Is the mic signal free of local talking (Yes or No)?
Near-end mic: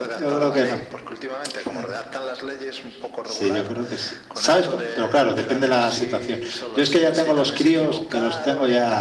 No